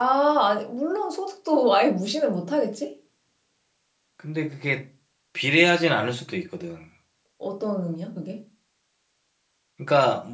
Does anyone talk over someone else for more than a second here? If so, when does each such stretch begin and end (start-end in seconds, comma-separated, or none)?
none